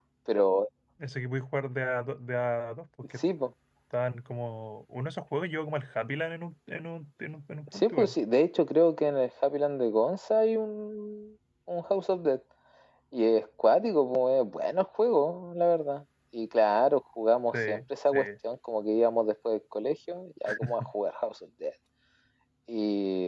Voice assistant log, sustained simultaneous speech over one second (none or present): none